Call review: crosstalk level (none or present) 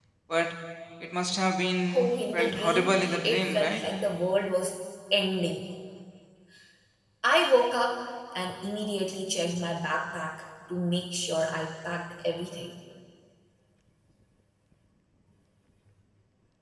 present